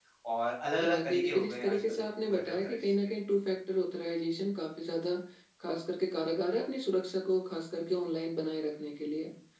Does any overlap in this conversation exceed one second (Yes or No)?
Yes